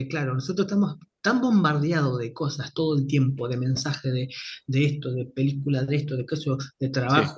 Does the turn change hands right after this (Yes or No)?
No